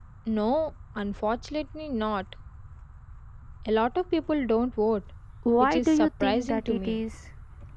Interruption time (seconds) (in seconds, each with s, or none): 5.6 s